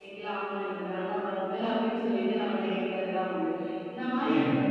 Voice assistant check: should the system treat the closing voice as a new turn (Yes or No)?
No